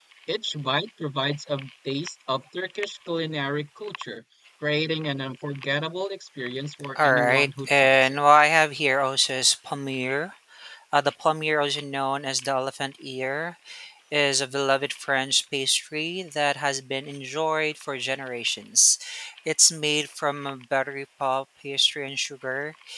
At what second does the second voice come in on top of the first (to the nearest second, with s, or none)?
7 s